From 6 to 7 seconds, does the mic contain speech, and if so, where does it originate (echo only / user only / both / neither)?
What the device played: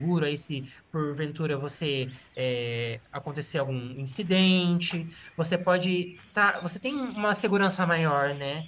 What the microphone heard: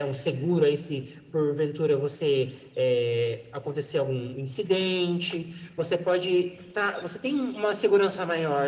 echo only